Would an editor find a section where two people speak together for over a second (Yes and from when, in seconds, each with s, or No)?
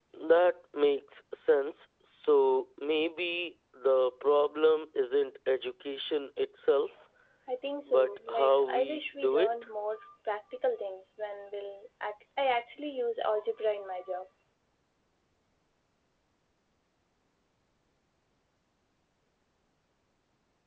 Yes, from 7.9 s